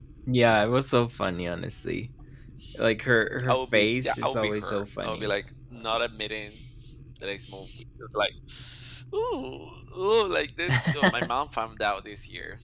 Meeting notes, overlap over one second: present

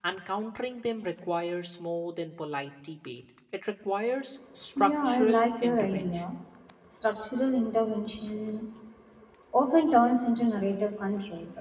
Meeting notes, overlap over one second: present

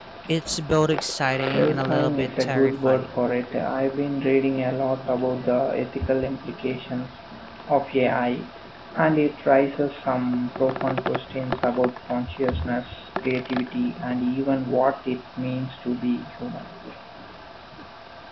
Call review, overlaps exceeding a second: present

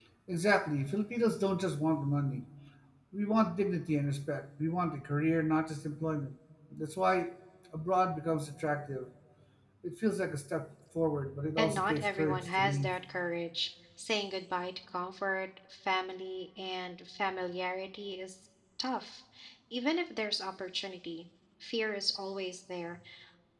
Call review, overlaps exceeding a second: present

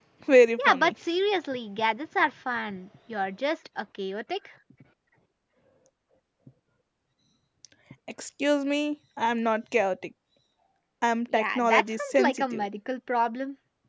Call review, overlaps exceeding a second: present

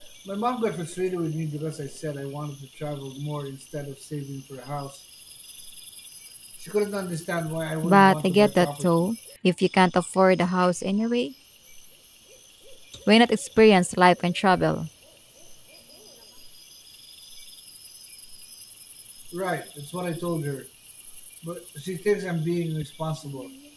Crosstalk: present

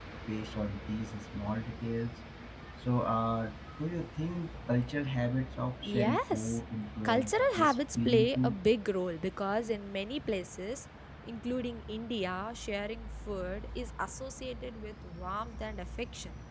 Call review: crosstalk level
present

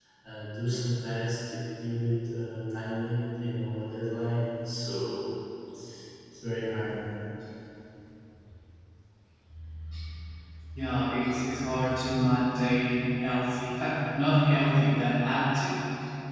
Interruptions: none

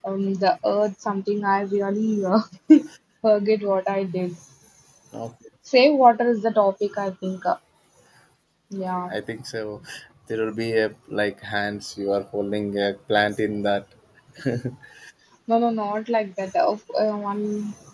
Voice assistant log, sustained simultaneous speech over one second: none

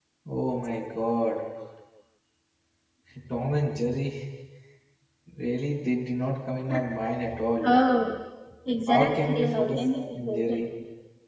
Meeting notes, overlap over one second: present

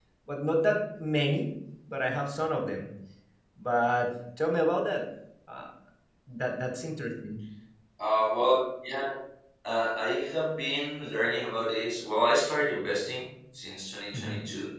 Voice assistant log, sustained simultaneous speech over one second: none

